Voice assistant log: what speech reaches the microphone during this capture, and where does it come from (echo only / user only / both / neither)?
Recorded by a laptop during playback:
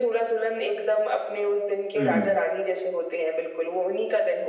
both